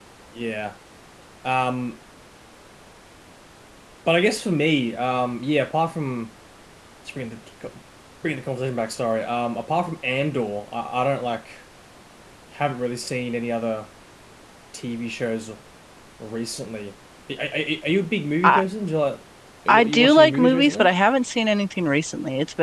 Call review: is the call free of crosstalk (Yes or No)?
No